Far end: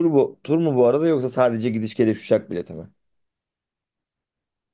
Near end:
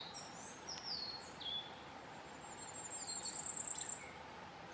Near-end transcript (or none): none